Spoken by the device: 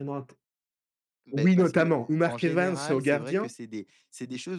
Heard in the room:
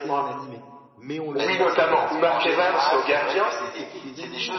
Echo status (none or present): present